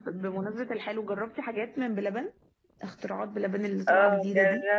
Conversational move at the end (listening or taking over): taking over